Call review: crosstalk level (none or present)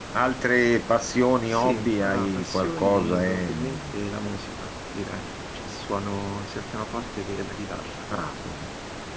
present